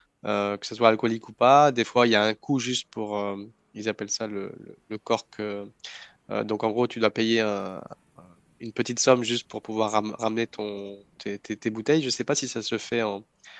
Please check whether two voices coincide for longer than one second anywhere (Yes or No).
No